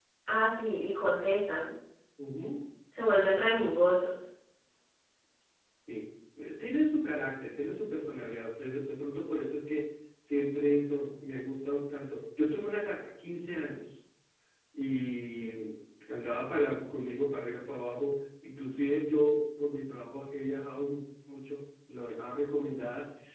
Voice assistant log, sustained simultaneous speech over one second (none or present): none